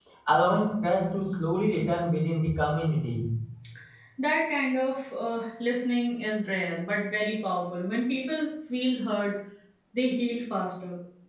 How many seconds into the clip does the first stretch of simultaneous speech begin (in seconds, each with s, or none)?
none